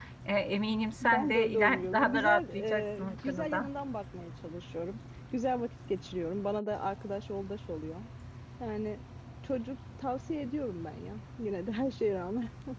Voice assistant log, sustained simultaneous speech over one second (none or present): present